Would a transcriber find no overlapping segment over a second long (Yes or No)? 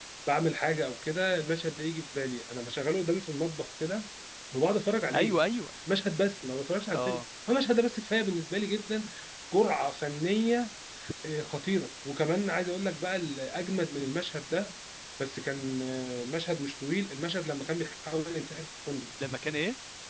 Yes